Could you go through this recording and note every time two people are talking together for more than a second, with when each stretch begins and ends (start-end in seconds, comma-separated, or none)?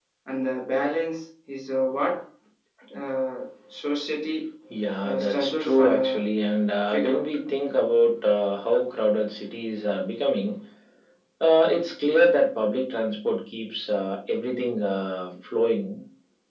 5.0-6.3